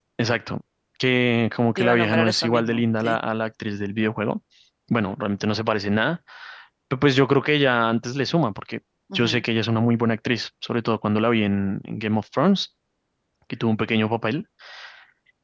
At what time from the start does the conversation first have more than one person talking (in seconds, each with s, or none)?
1.8 s